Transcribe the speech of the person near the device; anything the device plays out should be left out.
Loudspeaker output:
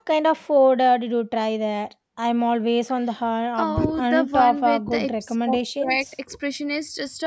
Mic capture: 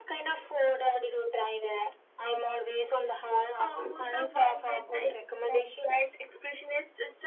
none

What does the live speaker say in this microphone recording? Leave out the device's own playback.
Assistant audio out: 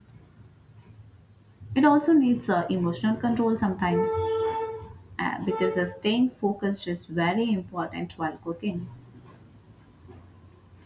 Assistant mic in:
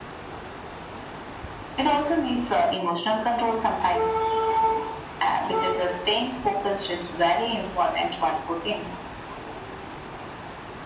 none

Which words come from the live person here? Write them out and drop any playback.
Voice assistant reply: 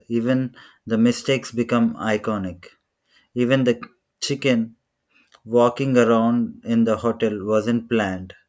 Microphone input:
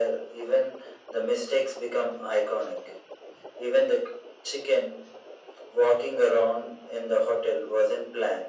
none

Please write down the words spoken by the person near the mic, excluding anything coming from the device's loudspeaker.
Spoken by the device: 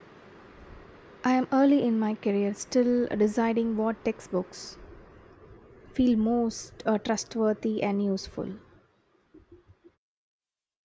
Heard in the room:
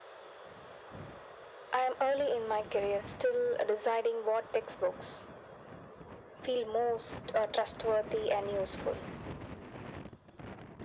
none

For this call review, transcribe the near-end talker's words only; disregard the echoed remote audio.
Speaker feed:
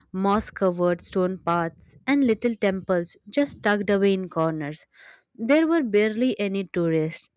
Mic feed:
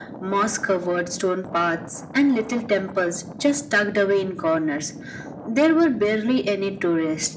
none

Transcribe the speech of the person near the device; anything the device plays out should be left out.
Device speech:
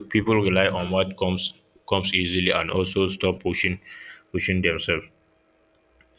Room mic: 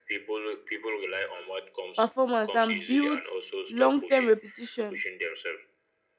performance and builds long-term repetition.

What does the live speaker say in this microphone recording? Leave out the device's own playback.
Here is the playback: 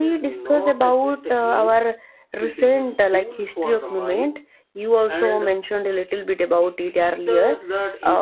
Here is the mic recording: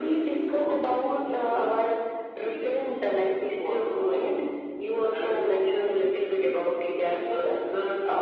none

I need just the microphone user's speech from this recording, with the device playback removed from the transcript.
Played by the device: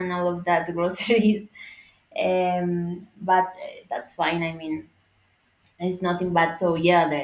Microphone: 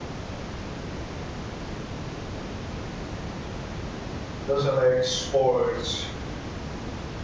doesn't like sports?

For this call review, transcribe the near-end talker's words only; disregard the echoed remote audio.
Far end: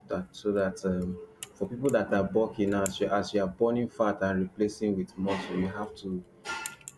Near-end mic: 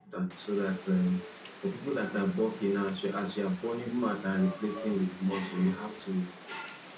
good uh, um

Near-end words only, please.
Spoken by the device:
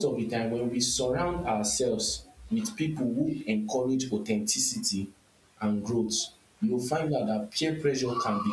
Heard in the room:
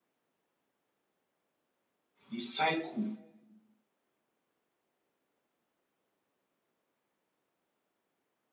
the cycle

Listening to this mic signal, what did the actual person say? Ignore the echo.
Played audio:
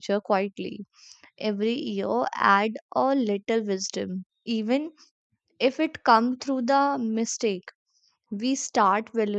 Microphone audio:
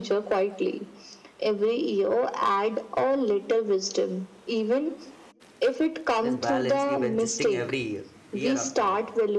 This balance keep adjusting every year, year after year.

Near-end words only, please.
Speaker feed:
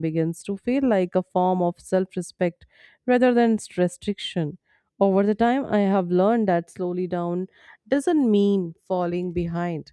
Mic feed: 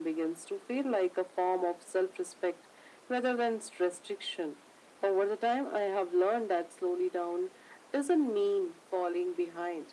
none

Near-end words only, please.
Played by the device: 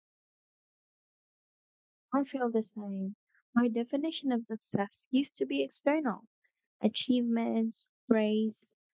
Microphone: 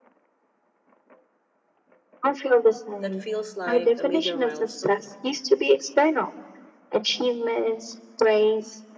That feels like a major milestone,

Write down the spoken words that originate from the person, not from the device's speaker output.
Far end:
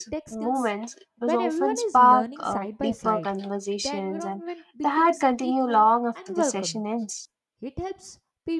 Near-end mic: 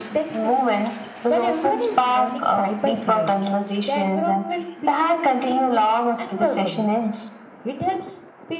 none

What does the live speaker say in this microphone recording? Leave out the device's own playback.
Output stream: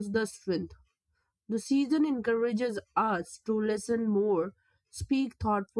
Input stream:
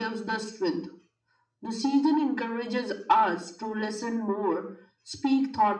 none

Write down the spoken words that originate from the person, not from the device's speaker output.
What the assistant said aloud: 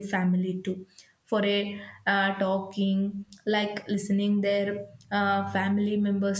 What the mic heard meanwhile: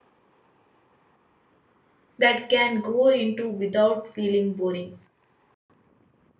that can go into without feeling boring

